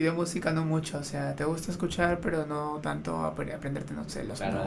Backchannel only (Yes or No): No